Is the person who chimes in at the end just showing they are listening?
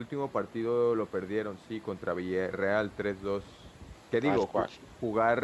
Yes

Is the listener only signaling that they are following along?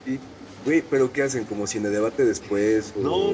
No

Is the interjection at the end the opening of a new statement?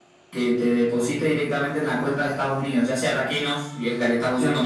No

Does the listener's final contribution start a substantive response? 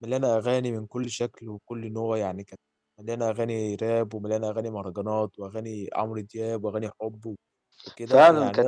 Yes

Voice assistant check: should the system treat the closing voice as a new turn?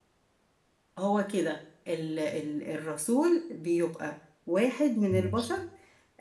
No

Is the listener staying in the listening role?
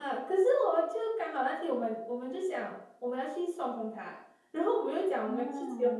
Yes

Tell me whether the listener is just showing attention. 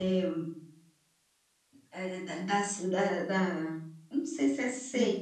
Yes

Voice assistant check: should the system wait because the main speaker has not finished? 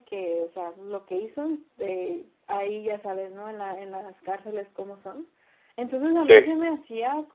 Yes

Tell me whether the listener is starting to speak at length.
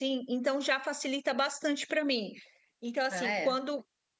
No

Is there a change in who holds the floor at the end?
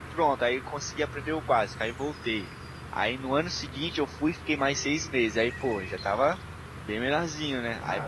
No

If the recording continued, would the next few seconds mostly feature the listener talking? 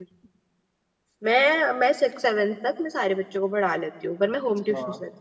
Yes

